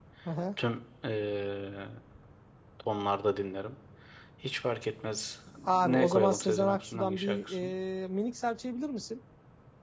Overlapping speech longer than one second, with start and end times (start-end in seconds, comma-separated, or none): 5.7-7.7